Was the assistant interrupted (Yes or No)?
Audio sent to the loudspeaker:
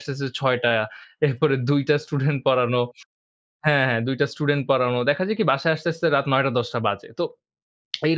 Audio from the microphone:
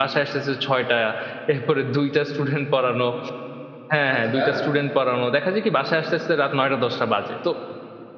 Yes